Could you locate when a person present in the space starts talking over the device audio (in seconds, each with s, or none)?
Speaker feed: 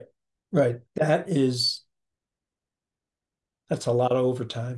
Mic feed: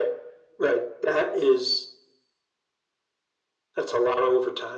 none